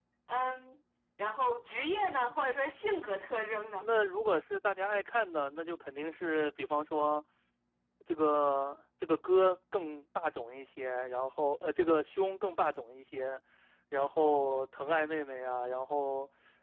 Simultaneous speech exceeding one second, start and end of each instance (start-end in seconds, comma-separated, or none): none